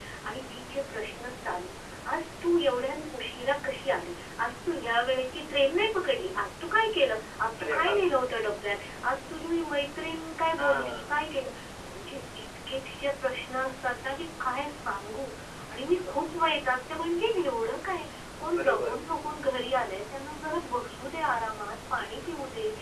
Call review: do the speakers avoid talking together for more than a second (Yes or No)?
Yes